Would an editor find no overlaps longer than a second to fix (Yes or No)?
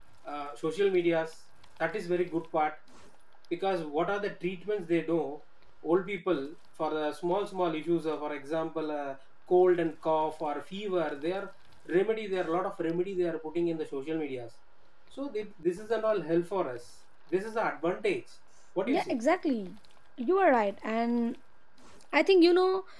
Yes